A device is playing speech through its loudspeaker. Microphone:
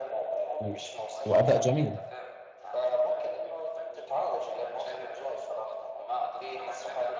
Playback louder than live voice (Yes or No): No